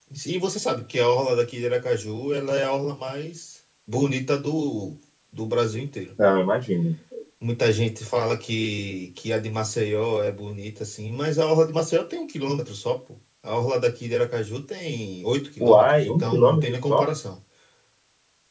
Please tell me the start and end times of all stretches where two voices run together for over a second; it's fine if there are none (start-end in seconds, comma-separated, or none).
15.6-17.1